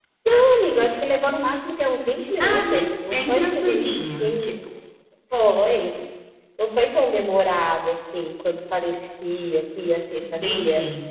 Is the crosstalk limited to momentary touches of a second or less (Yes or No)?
No